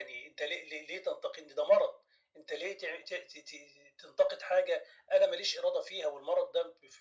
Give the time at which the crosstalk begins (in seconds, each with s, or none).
none